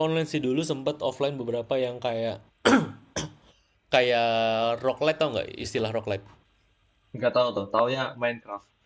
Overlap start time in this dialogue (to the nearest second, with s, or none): none